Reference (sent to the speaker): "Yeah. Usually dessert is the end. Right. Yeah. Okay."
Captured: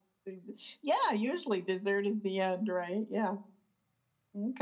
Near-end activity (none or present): none